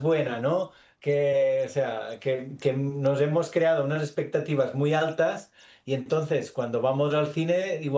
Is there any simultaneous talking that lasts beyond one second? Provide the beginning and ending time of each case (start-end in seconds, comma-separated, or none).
none